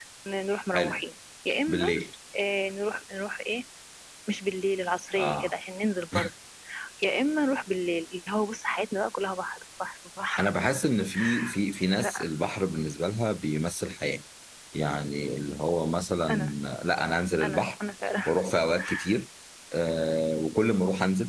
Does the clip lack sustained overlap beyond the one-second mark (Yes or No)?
Yes